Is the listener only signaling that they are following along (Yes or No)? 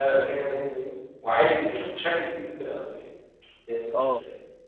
No